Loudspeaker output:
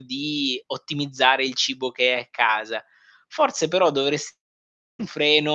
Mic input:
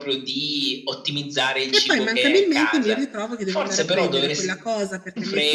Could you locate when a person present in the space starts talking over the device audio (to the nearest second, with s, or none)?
2 s